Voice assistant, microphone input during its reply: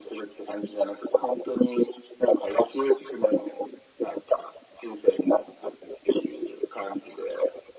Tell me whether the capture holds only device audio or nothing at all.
Yes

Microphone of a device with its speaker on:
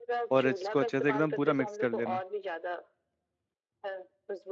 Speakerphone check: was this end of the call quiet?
No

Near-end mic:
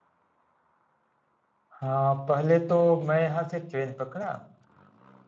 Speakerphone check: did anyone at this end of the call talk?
Yes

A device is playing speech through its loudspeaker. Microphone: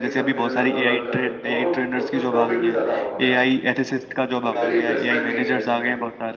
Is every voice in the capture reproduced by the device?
No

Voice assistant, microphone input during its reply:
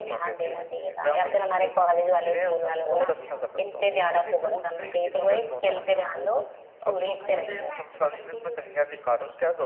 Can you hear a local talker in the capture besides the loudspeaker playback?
Yes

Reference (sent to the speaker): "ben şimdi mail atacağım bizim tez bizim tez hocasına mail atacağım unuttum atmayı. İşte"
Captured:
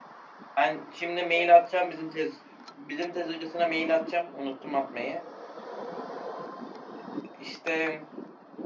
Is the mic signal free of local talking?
Yes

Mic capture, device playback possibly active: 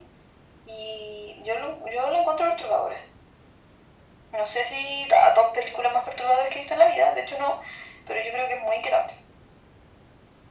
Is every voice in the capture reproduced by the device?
Yes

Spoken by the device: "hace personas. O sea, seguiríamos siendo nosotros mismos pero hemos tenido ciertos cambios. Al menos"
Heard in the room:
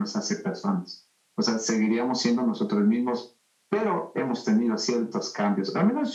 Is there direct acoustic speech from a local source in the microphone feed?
No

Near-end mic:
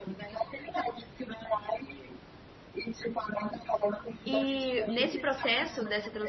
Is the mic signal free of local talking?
No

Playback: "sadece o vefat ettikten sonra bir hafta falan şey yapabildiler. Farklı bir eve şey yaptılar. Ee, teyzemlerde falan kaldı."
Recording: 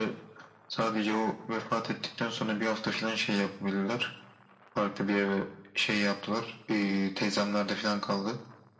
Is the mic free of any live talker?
Yes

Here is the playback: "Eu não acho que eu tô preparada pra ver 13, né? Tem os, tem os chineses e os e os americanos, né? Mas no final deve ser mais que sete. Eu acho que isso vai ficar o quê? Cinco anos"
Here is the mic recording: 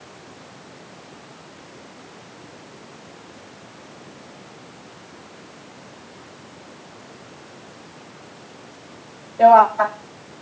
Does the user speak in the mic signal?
Yes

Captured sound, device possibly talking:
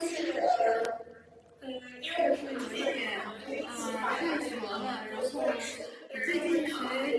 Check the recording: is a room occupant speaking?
Yes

